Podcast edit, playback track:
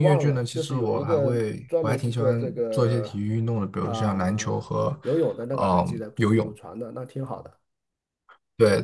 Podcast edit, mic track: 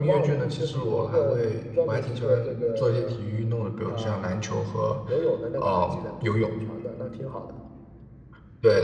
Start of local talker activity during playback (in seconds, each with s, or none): none